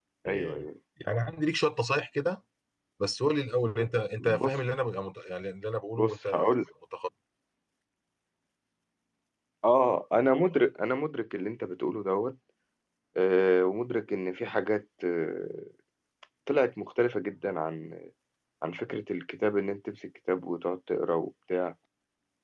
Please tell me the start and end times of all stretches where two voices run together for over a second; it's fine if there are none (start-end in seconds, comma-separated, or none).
none